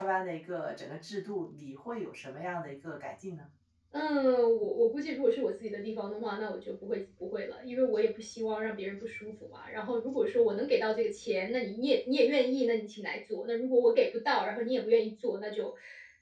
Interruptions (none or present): none